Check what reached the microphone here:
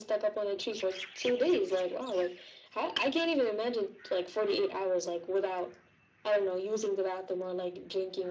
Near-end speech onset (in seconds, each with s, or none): none